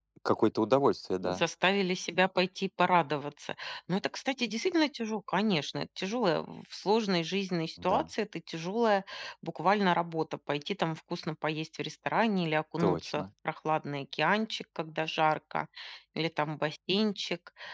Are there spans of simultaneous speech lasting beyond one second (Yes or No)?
No